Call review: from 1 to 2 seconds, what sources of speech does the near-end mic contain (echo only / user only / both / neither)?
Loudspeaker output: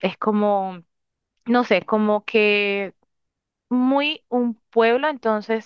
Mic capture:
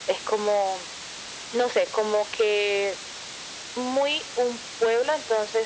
echo only